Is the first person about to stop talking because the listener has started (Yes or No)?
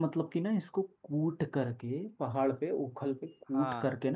No